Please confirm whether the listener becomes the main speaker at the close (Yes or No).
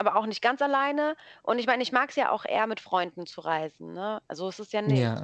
Yes